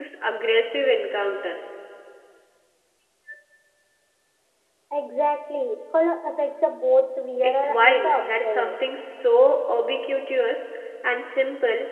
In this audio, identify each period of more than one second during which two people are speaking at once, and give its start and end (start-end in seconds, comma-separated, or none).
7.4-8.8